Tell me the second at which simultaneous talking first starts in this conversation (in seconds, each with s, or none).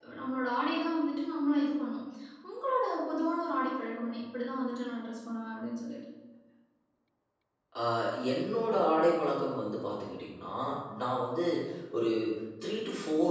none